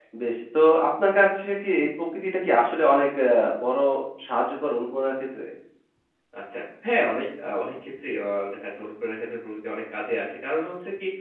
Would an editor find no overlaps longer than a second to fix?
Yes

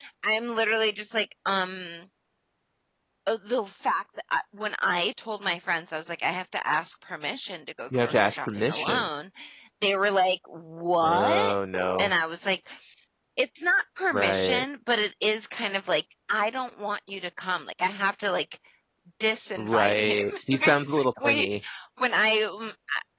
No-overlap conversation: No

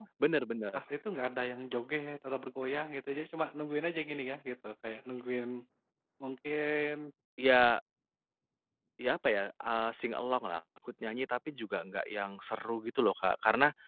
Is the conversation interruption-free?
Yes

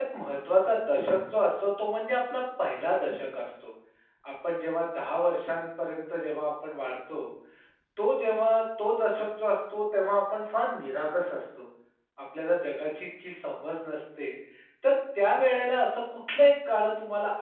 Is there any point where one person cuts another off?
No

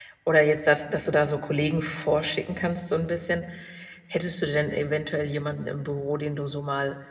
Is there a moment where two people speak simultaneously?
No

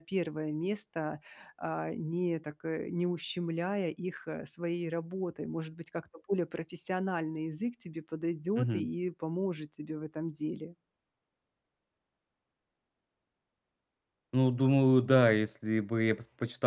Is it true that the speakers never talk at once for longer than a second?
Yes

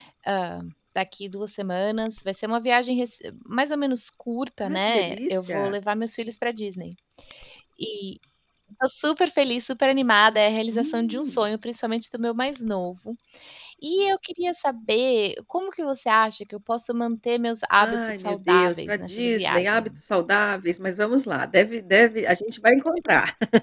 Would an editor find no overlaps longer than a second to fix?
No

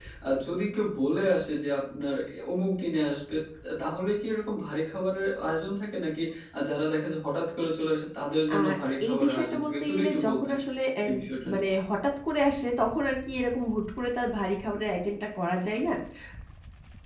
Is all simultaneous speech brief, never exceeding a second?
No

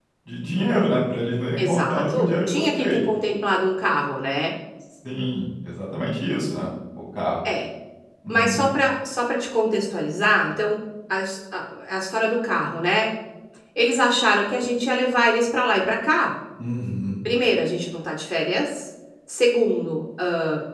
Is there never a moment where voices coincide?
No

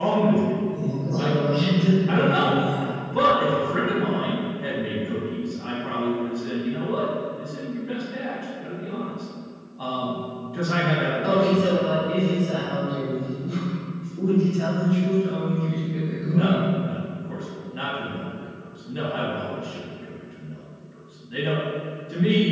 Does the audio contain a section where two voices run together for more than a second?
No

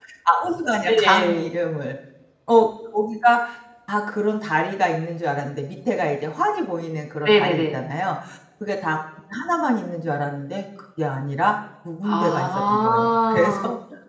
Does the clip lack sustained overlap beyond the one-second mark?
No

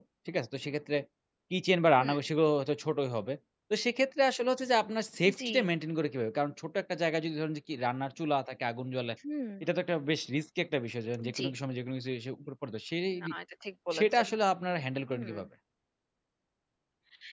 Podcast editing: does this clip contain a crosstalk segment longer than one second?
No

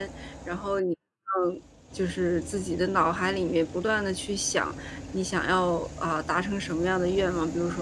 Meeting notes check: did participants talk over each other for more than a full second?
No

